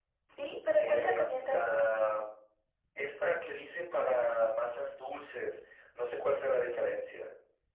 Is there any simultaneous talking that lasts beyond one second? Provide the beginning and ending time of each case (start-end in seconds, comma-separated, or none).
0.7-1.9